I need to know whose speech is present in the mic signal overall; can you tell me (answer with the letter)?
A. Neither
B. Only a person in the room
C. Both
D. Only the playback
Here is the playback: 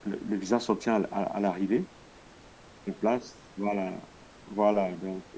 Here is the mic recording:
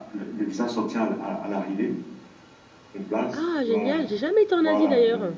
C